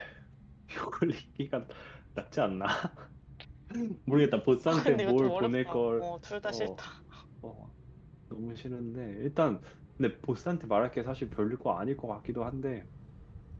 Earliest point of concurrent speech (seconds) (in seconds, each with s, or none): 4.7 s